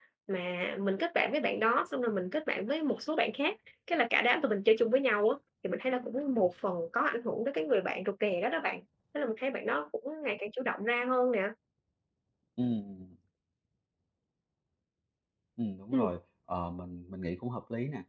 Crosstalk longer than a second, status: none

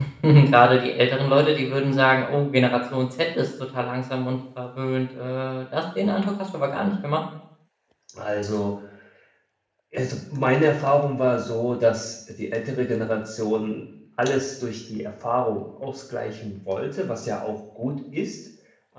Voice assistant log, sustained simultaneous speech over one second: none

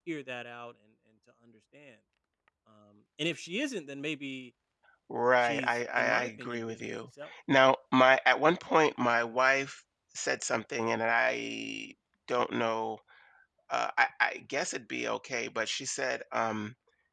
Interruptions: present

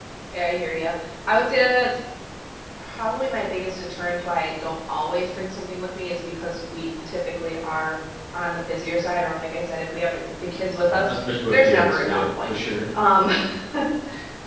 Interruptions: present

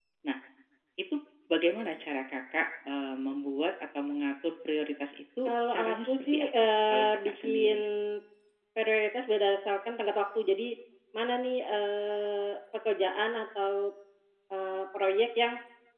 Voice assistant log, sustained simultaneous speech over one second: present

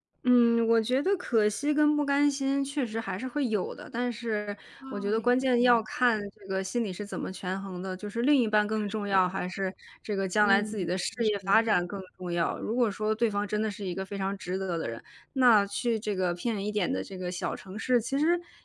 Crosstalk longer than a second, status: present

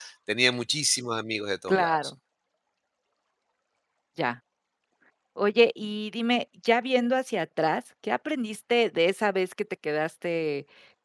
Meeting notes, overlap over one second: none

